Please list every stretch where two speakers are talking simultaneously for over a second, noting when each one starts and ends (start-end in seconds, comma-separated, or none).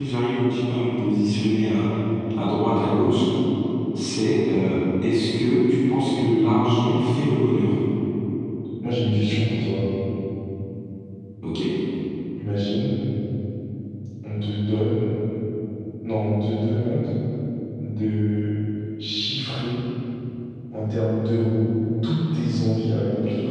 none